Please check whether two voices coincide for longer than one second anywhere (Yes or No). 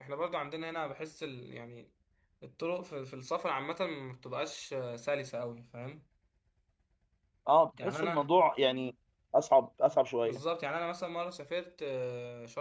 No